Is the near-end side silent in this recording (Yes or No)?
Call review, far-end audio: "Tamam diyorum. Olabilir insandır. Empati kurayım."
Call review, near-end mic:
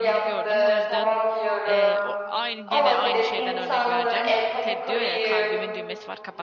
No